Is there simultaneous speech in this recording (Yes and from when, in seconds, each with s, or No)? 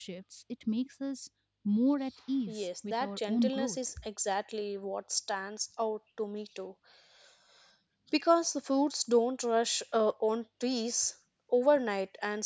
Yes, from 2.5 s